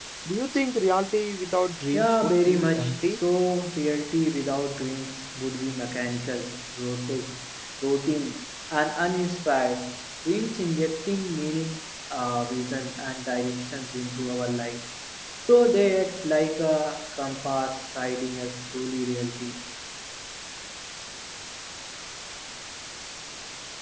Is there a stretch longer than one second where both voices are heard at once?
Yes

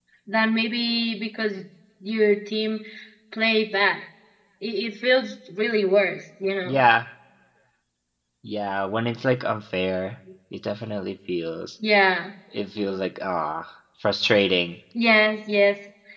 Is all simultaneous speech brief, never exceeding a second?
Yes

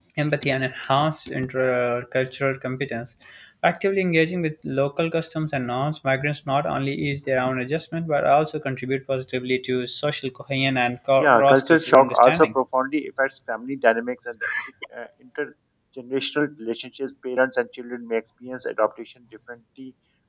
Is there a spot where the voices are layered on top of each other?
Yes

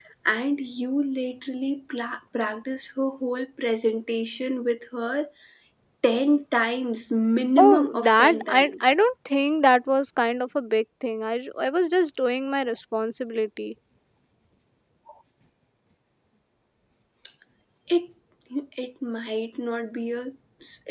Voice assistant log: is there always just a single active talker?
No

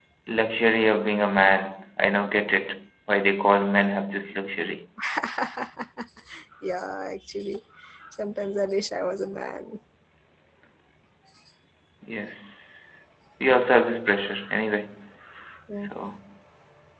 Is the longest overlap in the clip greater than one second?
No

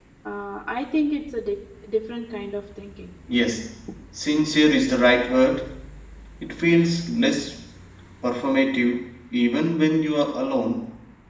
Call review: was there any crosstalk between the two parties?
No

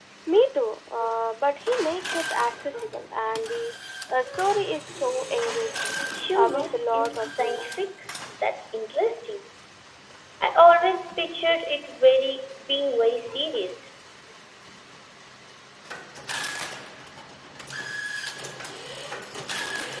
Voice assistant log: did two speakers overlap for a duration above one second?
Yes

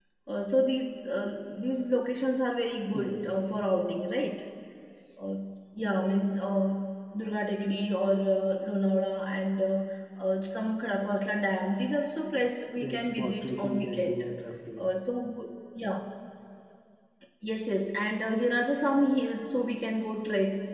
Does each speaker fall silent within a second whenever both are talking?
No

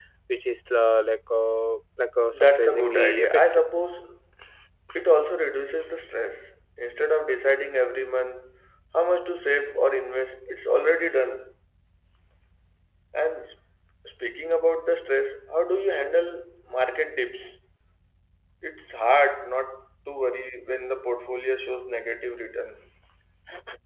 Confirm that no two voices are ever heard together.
No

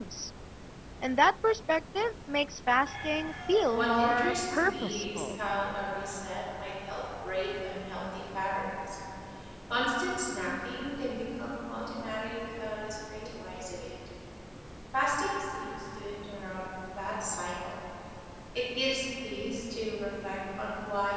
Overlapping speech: Yes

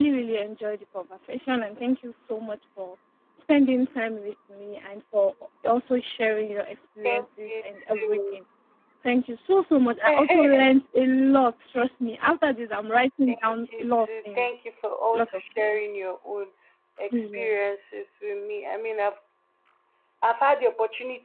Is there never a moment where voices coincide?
No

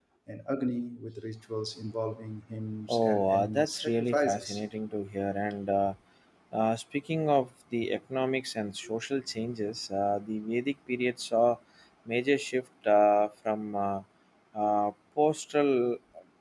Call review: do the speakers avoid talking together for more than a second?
No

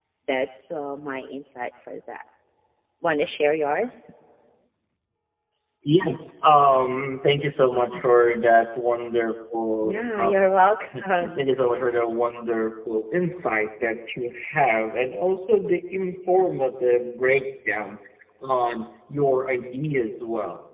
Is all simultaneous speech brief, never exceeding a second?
Yes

